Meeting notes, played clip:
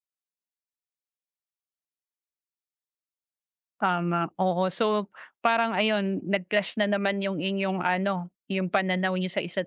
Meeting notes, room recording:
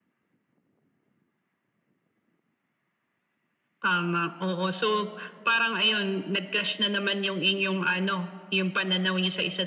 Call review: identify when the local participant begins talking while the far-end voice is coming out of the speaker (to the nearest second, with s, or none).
none